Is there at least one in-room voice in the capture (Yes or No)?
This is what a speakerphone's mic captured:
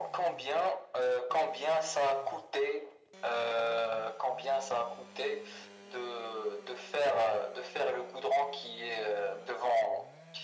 No